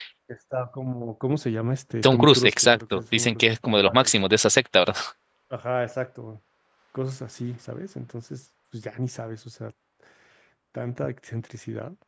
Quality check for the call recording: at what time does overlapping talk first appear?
2.0 s

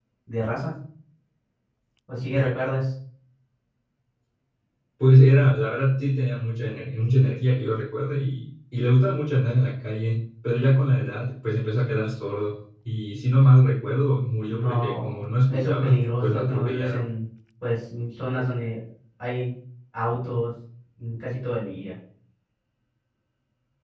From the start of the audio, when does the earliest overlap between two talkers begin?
14.5 s

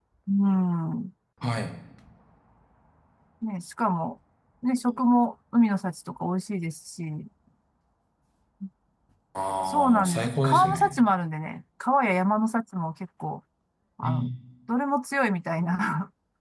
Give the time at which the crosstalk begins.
9.6 s

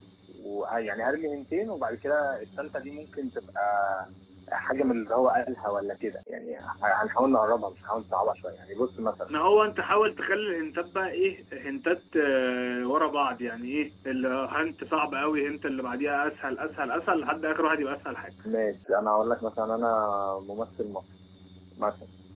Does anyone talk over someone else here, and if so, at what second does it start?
none

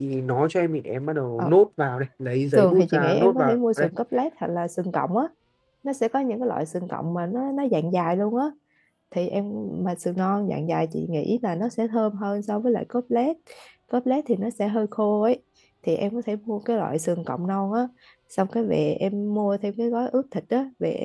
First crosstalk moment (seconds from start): 2.5 s

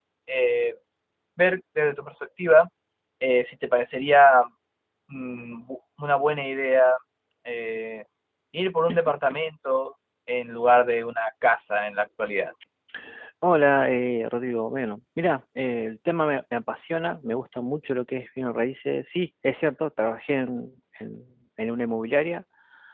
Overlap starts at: none

